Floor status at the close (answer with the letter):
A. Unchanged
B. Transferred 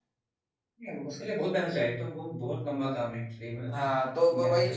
B